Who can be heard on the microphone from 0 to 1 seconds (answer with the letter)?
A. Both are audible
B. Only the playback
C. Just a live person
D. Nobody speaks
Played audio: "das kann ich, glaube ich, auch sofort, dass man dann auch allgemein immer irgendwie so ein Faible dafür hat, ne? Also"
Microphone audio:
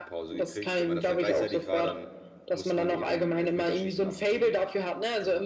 A